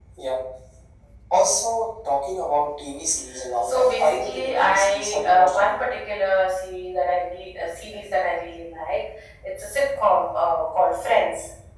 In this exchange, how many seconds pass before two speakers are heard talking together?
4 s

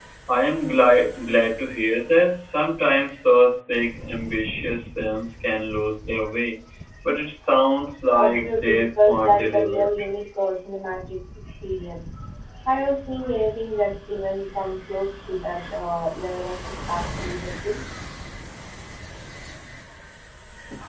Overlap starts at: 8 s

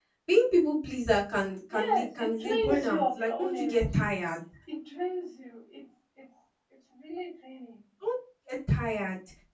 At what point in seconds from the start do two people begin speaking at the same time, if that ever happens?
2 s

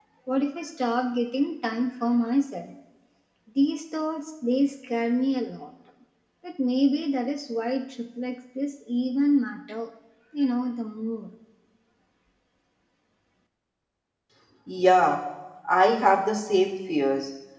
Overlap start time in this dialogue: none

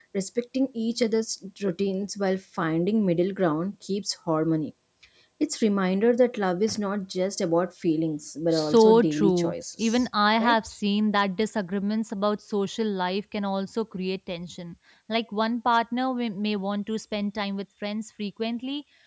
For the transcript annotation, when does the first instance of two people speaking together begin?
9 s

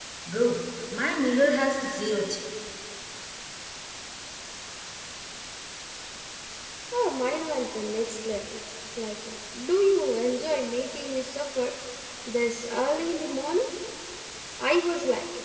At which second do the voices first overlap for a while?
none

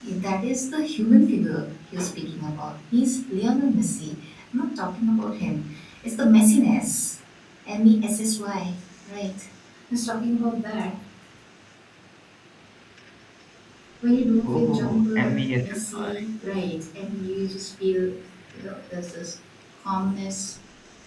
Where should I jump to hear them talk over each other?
15 s

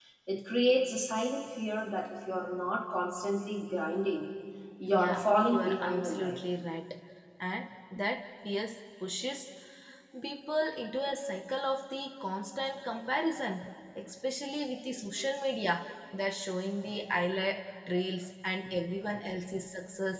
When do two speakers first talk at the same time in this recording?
5 s

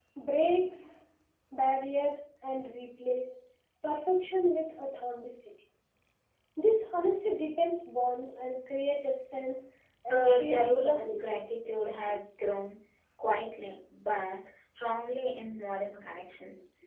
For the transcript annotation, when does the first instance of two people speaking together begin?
10 s

